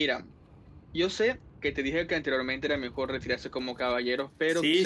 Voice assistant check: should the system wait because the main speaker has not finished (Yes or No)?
No